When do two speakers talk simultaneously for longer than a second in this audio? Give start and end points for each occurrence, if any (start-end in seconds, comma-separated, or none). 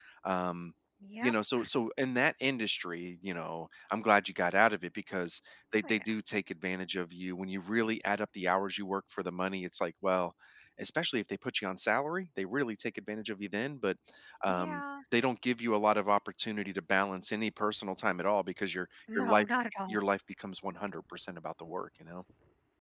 none